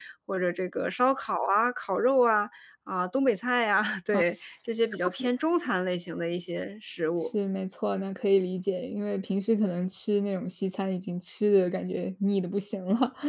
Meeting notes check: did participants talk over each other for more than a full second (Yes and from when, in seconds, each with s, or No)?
No